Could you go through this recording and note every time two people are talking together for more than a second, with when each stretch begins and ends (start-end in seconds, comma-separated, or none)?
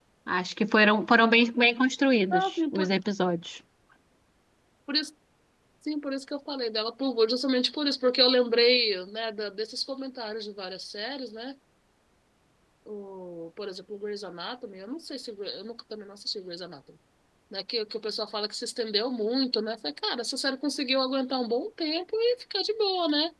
none